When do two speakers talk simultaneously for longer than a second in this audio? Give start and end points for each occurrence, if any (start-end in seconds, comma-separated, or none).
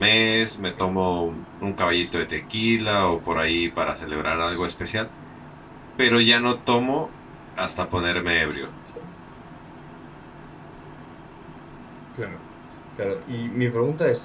none